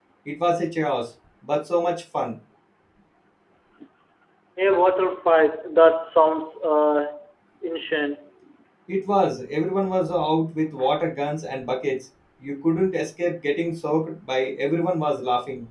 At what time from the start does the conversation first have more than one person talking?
none

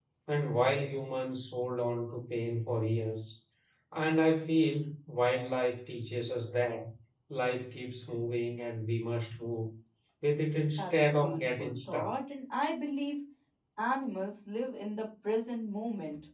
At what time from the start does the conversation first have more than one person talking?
11 s

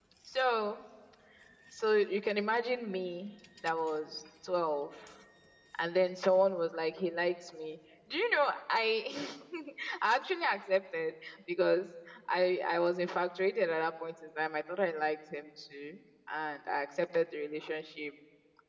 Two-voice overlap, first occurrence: none

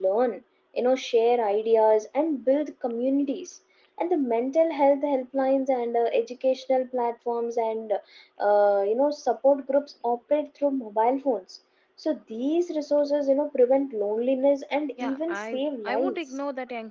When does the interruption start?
15 s

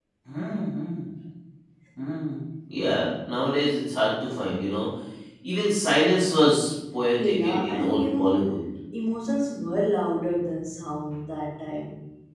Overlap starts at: 7 s

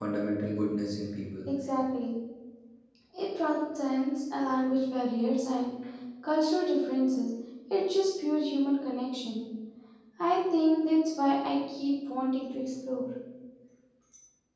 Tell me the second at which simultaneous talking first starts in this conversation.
none

